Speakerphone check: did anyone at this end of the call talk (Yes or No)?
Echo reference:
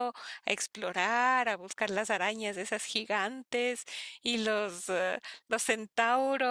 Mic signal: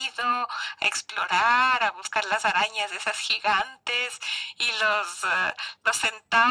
No